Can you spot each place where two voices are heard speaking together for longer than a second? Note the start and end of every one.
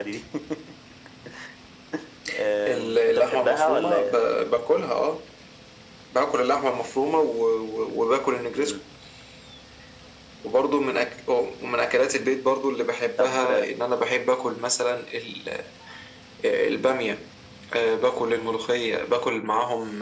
2.7-4.1

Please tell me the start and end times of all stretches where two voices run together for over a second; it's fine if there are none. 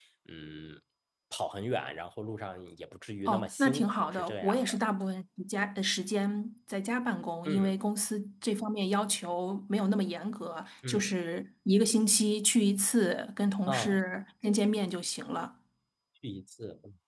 3.2-4.8

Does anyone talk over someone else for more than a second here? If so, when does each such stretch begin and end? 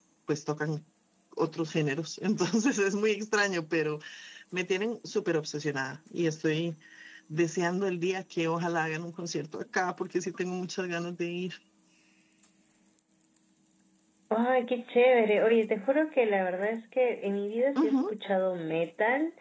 none

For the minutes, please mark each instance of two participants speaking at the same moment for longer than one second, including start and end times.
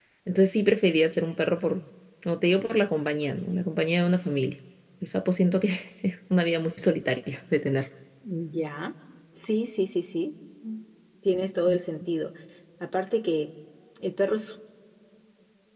none

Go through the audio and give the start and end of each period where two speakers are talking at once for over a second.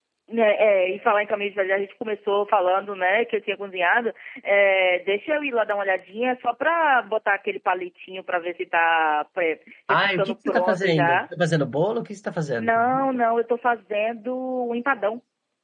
9.9-11.2

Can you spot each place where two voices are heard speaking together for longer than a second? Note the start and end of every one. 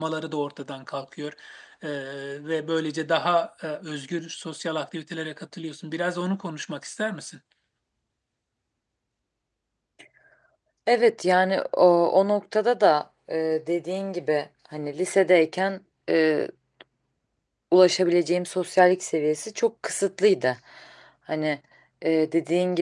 none

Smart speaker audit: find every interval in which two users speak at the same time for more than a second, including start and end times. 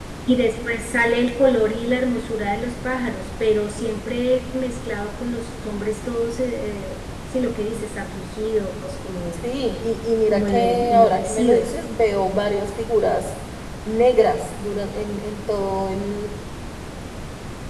10.3-11.7

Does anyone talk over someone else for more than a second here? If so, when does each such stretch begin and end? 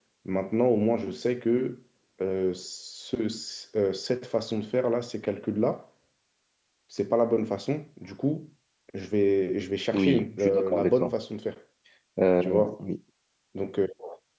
9.9-11.1

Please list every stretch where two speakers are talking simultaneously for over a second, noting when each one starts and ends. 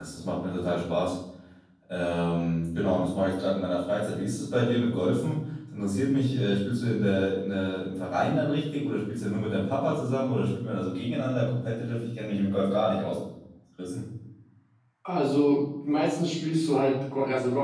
none

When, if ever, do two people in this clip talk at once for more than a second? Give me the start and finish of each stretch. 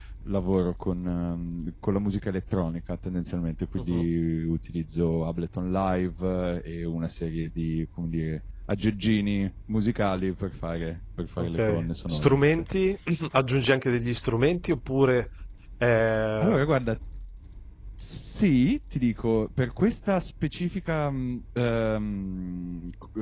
11.4-12.6

